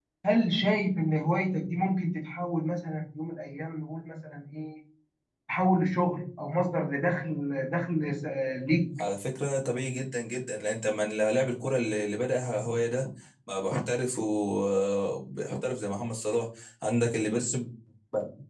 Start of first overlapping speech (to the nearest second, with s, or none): none